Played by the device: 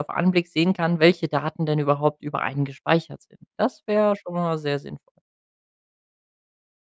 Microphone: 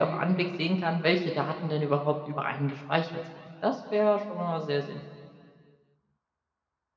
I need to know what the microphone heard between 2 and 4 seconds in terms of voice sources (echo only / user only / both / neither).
echo only